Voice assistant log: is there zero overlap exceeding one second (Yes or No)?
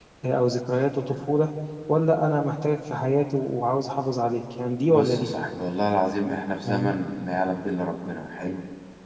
Yes